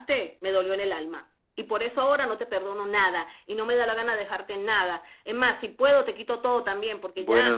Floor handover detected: Yes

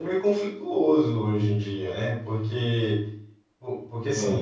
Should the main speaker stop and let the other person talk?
No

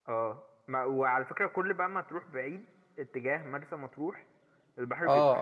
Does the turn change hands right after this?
Yes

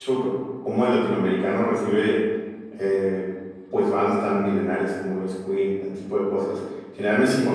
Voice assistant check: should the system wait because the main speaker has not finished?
Yes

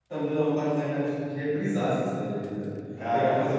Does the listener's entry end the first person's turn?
No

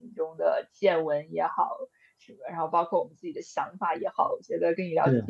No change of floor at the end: Yes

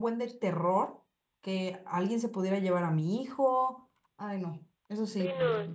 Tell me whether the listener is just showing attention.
No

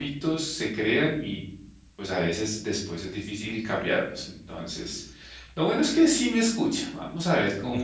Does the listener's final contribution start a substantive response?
No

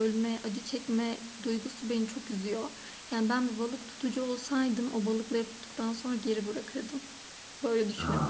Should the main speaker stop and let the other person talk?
Yes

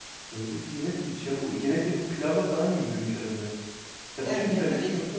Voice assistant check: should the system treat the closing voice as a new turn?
Yes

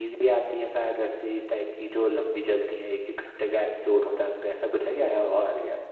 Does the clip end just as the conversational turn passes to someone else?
Yes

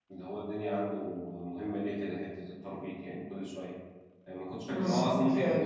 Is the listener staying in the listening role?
Yes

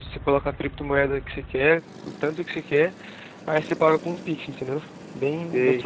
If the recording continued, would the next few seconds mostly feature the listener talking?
Yes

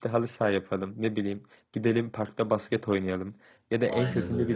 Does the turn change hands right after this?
No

